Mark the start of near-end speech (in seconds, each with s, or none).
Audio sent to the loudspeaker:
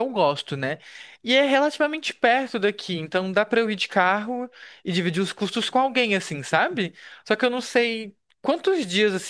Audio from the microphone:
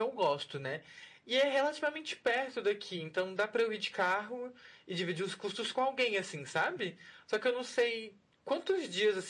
none